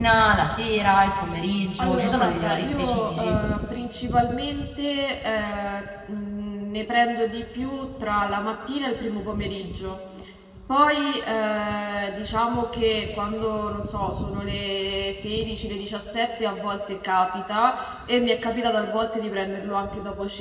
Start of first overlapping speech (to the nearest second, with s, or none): 2 s